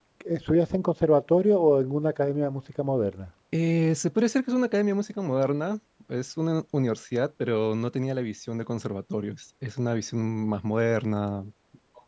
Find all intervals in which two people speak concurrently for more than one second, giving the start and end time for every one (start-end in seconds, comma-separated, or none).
none